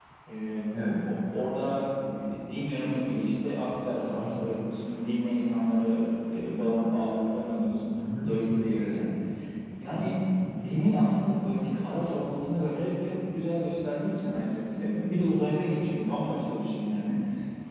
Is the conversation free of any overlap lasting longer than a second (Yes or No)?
Yes